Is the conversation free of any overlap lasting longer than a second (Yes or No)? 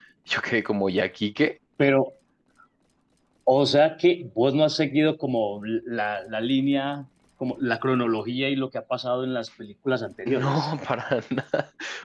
Yes